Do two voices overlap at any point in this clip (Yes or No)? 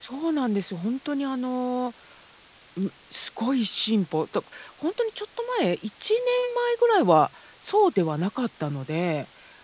No